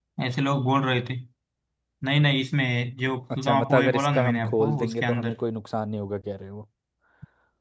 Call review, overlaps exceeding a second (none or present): present